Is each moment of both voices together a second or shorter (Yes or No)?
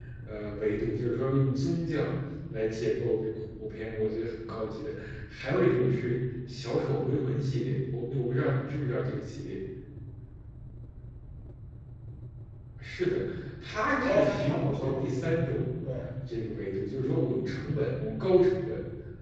No